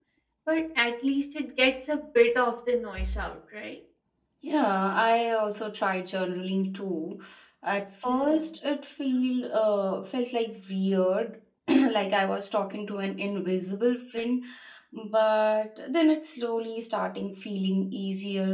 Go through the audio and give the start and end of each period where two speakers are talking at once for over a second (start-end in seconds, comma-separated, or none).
none